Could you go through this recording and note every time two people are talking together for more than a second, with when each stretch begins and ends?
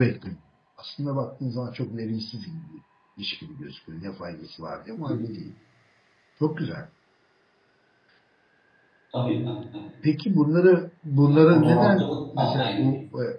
11.2-12.8

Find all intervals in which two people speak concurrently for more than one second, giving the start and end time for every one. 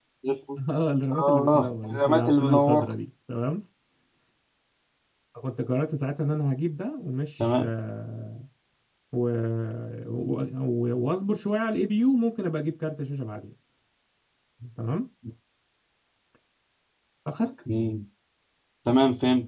1.1-2.9

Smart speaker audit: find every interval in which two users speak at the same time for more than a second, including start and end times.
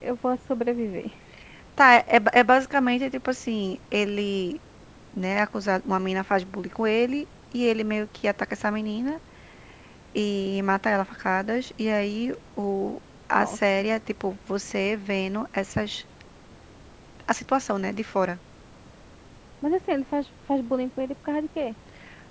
none

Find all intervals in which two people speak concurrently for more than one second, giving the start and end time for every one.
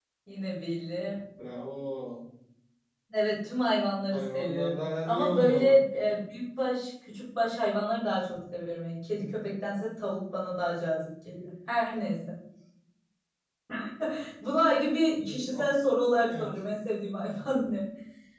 4.1-5.8

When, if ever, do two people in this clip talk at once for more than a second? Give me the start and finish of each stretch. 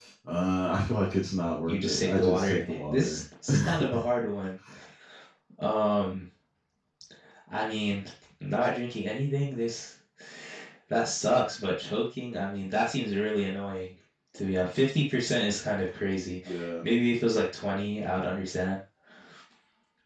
1.7-3.2

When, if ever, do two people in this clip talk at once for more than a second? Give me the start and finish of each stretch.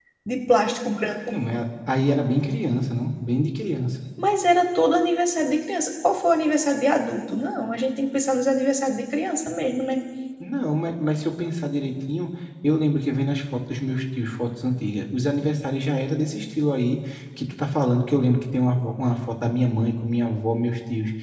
none

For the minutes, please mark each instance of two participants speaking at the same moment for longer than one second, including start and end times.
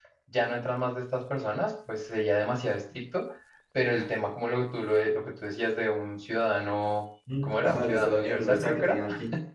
7.4-9.0

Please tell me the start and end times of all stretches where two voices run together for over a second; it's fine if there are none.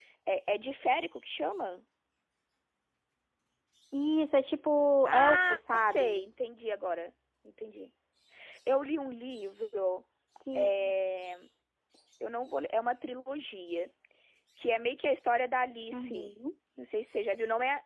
5.0-6.2

